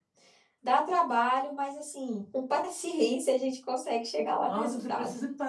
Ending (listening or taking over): taking over